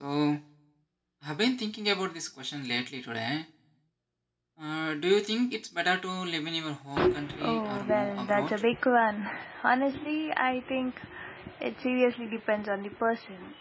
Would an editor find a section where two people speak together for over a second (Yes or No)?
Yes